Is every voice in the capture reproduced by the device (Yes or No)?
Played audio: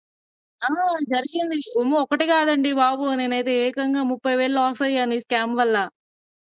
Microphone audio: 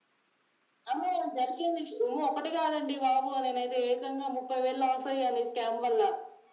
Yes